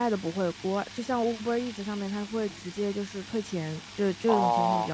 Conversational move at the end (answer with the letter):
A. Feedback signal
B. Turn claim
B